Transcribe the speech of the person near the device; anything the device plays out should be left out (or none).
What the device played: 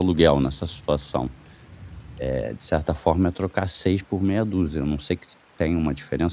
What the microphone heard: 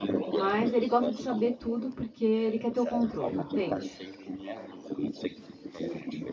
Mas ele gosta de saber tudo, porque ele quer ter o controle, entende?